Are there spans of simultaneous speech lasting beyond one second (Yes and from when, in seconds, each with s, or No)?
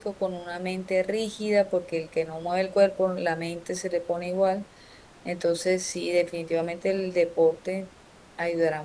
No